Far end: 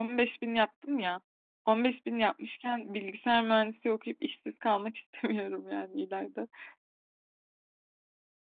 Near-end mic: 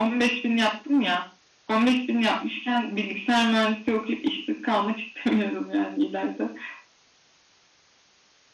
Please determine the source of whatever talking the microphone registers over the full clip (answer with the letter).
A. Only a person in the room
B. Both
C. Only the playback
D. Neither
C